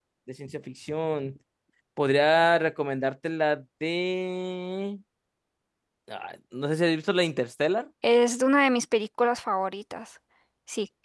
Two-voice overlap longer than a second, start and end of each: none

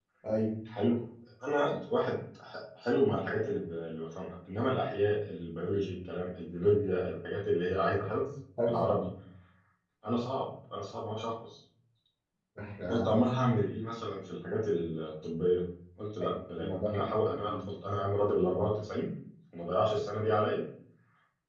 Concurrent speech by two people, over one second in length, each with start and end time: 16.2-17.6

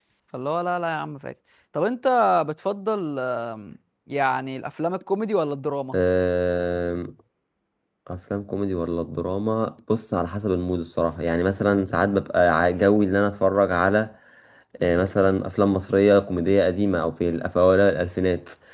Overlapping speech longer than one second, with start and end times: none

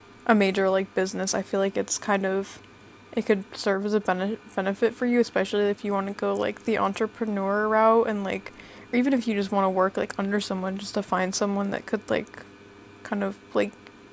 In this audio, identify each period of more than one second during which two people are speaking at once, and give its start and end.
none

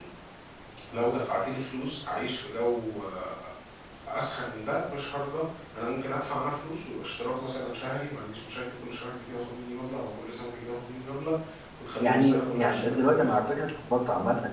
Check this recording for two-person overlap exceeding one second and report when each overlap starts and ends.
12.0-13.3

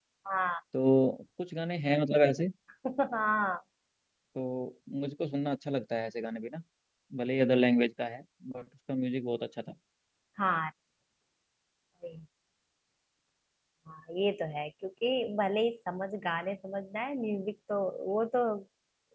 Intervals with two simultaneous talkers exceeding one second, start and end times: none

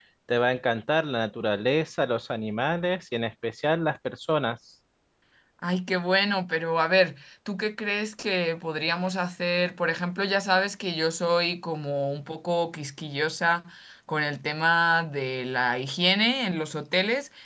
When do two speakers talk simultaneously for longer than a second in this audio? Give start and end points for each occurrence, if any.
none

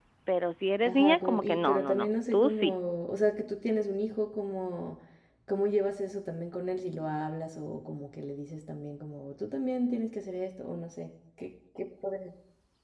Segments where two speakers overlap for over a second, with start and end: 0.8-2.7

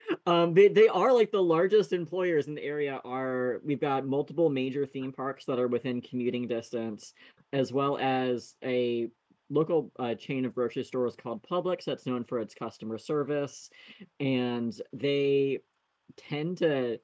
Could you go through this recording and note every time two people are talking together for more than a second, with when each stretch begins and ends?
none

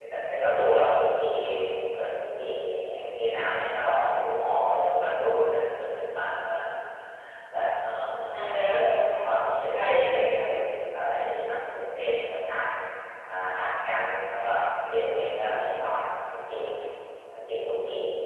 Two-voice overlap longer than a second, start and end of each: 8.4-10.4

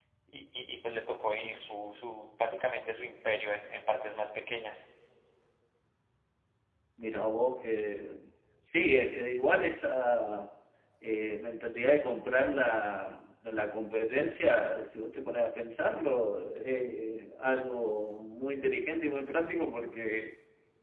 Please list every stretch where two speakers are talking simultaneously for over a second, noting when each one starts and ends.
none

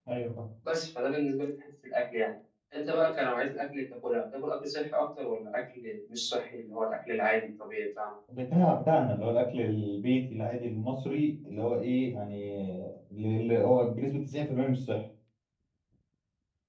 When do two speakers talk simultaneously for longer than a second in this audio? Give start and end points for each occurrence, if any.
none

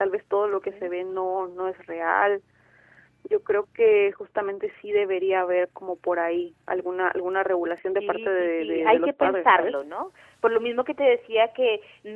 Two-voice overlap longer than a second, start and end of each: 8.0-9.7

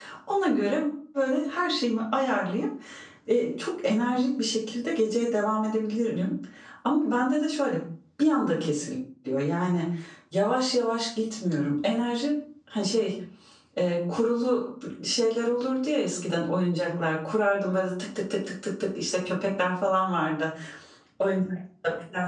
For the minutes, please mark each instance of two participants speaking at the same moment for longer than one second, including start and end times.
none

